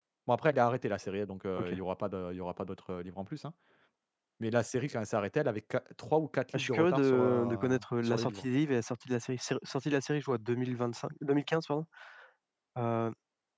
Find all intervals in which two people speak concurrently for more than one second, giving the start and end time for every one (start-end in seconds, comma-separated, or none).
6.5-8.4